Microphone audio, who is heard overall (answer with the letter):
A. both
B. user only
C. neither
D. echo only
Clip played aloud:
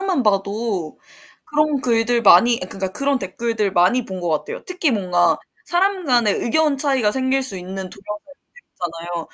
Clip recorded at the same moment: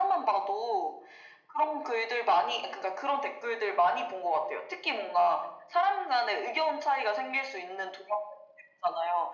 D